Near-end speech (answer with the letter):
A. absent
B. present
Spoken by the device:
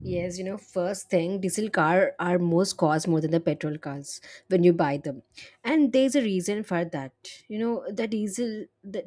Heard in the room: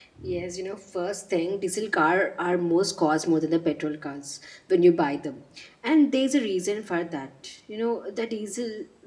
A